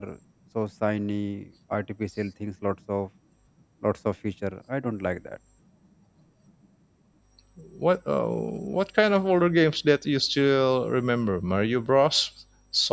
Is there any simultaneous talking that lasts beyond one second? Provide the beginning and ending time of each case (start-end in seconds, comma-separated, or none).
none